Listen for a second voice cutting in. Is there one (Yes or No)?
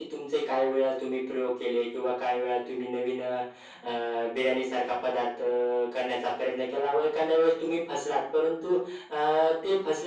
No